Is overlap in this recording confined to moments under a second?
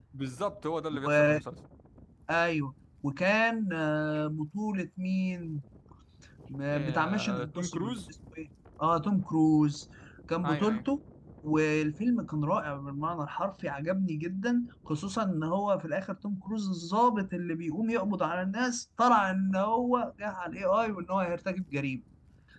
No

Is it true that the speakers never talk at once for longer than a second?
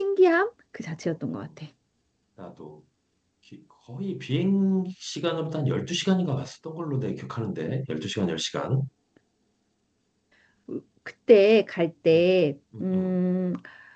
Yes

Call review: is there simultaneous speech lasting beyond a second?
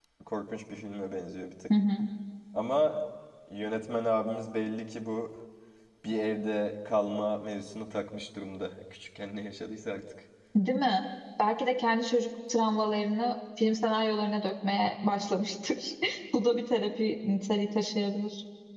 No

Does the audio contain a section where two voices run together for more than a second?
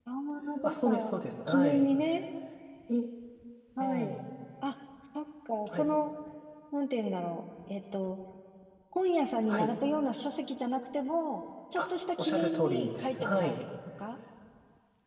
Yes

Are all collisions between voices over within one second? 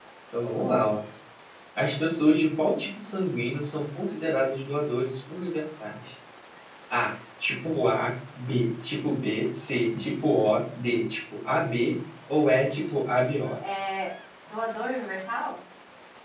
Yes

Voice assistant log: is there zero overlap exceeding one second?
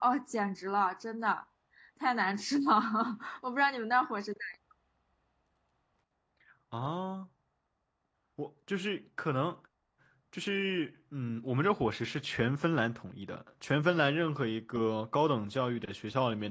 Yes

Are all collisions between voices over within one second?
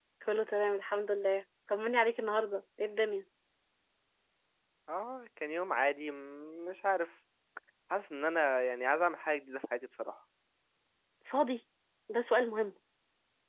Yes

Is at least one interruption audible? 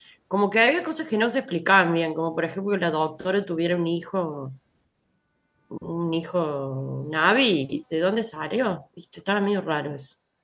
No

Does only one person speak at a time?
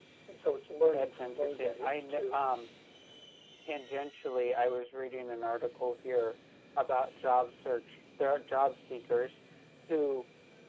No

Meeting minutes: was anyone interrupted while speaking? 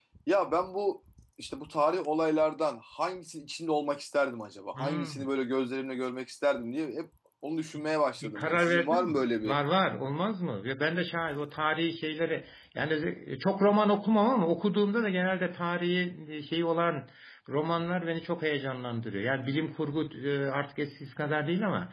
Yes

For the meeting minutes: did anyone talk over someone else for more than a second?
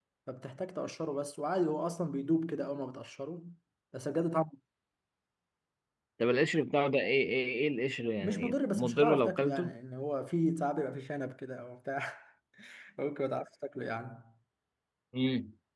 Yes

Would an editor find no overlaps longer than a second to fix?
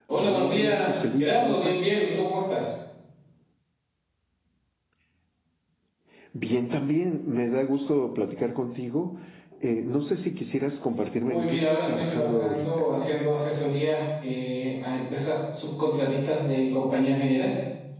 No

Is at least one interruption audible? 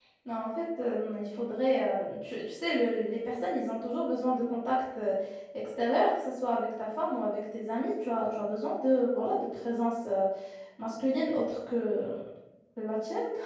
No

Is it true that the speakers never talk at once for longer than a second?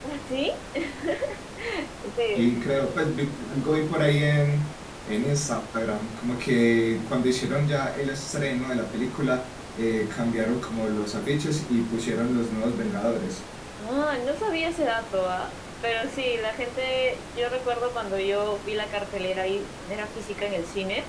Yes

